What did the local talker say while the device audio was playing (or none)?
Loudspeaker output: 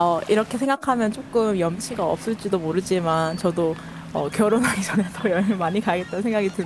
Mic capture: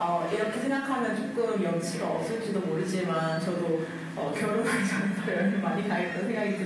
none